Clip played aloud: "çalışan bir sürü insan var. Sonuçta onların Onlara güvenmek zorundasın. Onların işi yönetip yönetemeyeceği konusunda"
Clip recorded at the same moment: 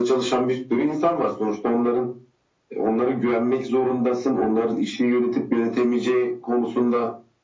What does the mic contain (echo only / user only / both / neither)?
echo only